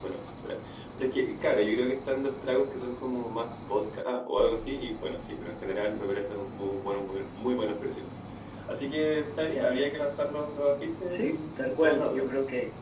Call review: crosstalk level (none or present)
present